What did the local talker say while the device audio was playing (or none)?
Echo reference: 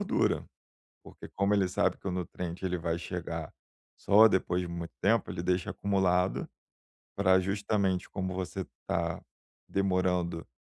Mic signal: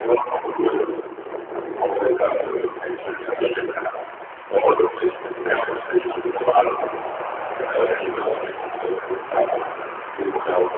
none